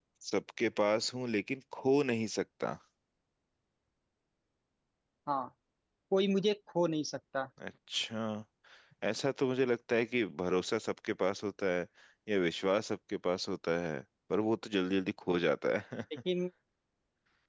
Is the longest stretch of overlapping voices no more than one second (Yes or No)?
Yes